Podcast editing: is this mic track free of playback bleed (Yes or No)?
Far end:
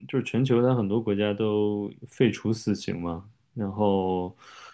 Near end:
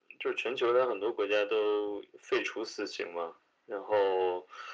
No